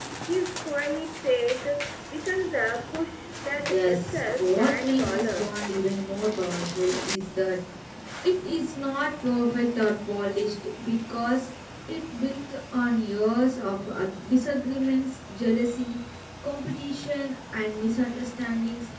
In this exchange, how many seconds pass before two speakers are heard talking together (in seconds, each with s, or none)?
3.6 s